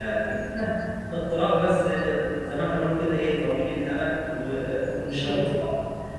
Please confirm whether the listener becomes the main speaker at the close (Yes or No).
No